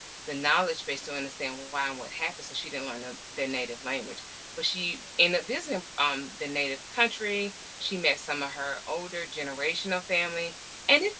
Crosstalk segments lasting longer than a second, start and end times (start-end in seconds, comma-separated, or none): none